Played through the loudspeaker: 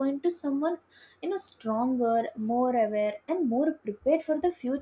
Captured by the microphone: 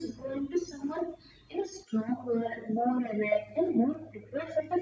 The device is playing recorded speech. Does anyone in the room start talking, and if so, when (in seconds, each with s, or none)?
none